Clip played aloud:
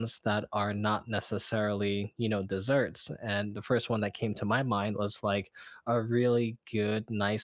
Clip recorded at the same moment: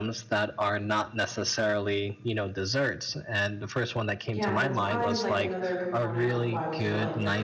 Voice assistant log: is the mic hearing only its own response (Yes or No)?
No